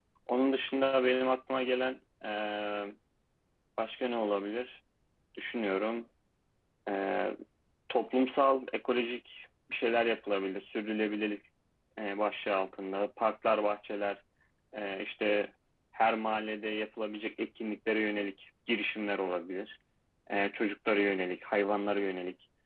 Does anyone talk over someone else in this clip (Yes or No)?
No